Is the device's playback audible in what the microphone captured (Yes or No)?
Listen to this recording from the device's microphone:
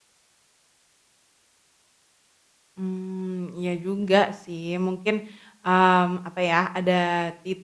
No